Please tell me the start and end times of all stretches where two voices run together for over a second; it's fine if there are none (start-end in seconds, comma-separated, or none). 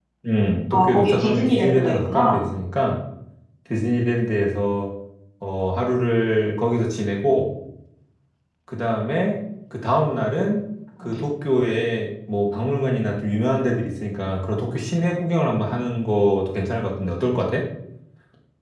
0.7-2.4